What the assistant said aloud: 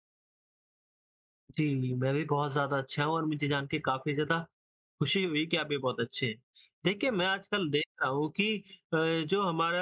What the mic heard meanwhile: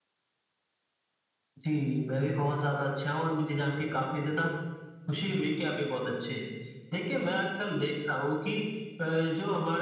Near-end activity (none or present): present